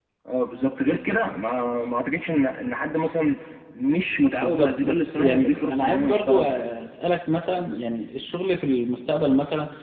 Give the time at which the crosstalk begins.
4.4 s

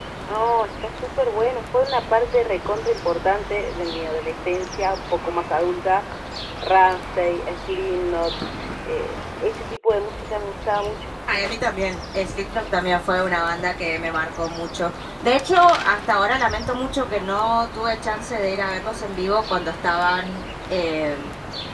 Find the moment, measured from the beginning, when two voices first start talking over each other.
none

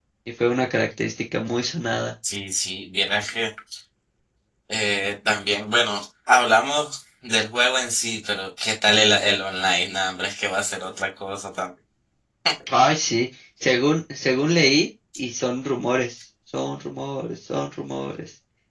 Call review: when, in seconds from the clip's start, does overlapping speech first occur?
none

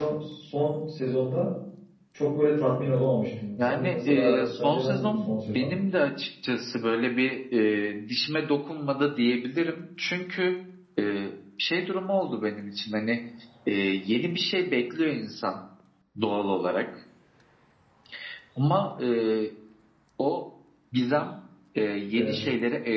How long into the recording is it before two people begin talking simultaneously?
3.6 s

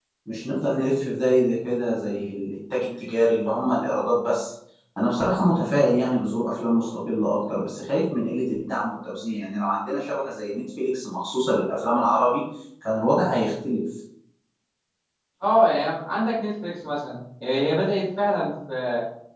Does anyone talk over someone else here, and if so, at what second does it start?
none

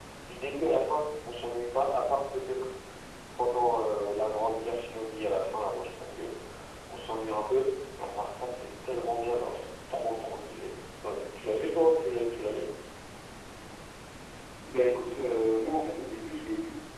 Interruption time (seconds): none

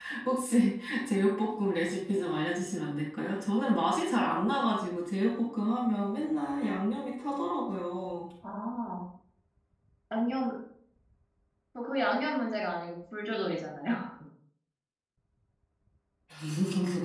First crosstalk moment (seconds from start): none

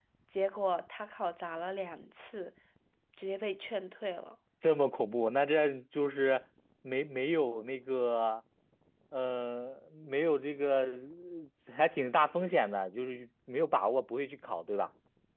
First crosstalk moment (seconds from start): none

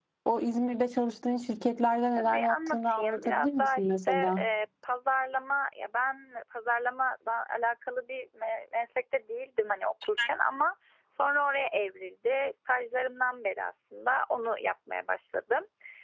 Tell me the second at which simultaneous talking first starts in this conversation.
2.1 s

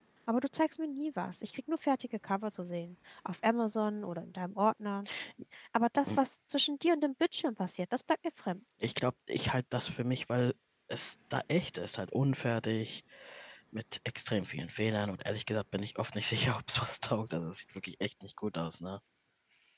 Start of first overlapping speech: none

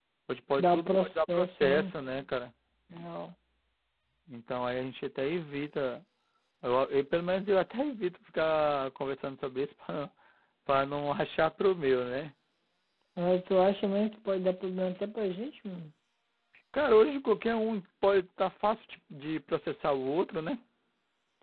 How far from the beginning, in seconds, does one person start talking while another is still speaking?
0.6 s

